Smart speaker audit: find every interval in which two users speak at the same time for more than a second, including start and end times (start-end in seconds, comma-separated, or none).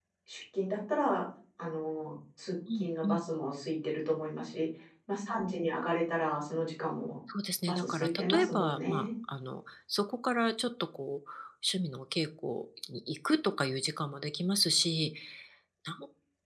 7.7-9.1